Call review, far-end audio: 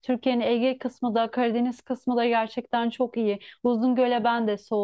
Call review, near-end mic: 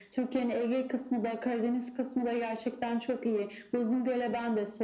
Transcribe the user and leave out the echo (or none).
none